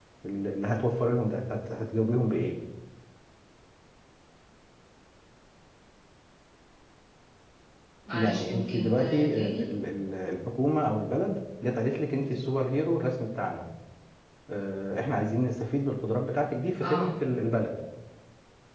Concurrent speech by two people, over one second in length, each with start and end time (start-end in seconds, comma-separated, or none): 8.1-9.7